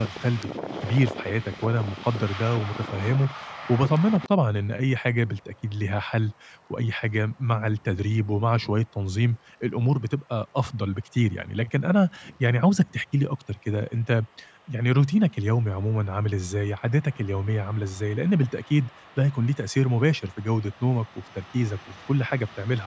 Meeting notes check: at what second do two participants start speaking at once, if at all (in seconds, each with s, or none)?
none